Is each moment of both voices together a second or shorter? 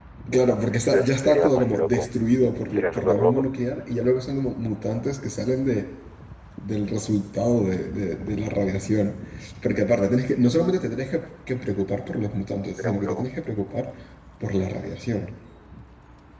No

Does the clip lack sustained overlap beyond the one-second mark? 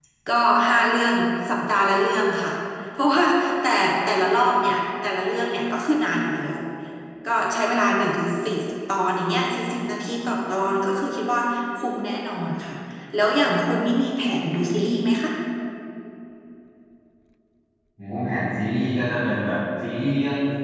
Yes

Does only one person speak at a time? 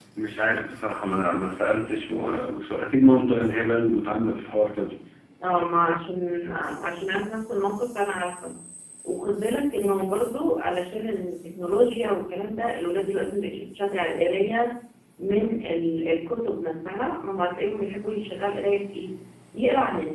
Yes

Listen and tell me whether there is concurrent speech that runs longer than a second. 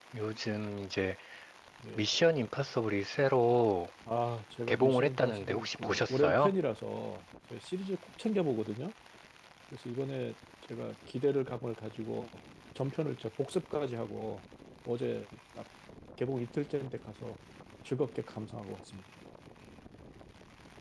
Yes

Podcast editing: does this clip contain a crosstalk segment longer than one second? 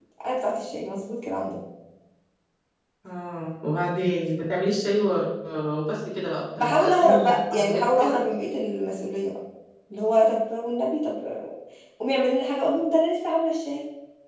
Yes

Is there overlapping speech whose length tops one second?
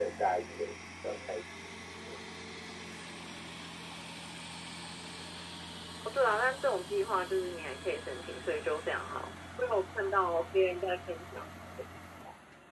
No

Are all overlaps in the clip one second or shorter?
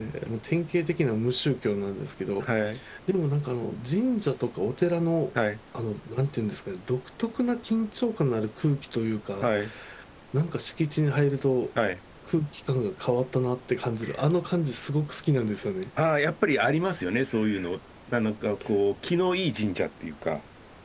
Yes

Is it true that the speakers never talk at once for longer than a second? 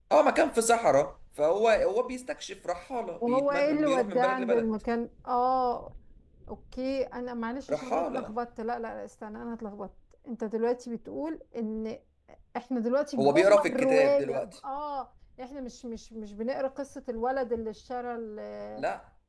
No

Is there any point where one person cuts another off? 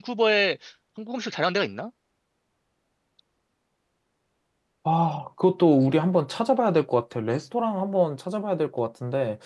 No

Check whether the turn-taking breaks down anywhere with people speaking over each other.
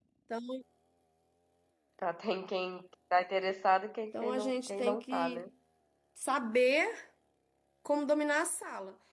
Yes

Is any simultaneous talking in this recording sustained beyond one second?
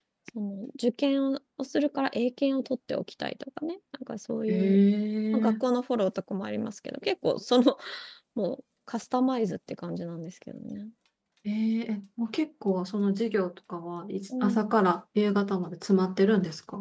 No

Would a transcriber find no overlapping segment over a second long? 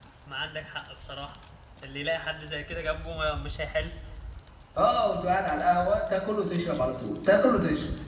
Yes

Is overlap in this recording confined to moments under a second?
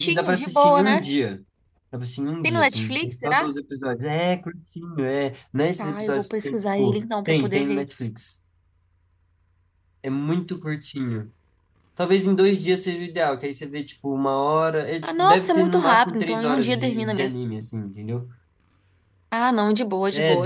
No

